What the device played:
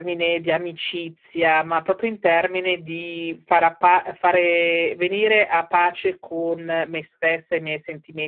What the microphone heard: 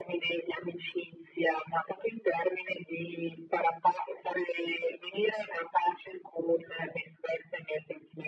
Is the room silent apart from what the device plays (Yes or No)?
Yes